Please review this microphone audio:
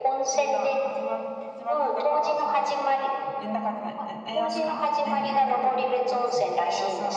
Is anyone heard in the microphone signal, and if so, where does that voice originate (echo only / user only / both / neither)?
both